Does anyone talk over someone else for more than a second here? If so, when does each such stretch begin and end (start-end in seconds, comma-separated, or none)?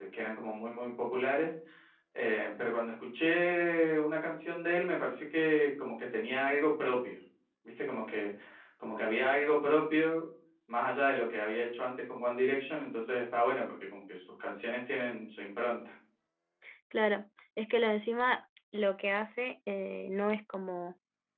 none